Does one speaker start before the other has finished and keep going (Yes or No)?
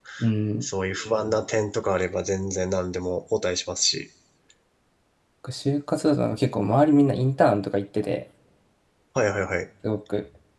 No